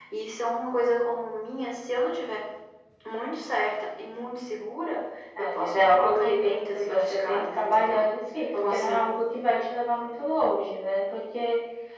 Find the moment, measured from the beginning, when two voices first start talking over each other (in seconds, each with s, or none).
5.4 s